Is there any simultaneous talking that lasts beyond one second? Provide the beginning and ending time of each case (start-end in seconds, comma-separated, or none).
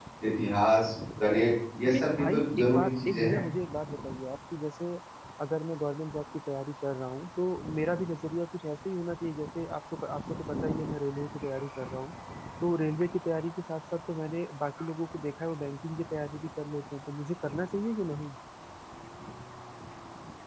1.8-3.4